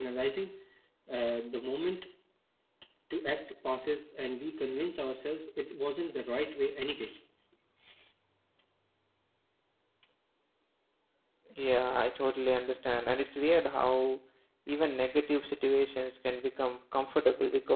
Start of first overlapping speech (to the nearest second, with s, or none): none